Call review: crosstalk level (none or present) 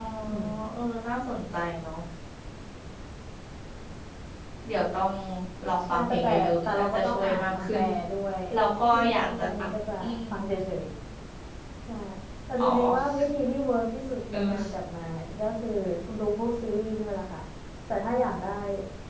present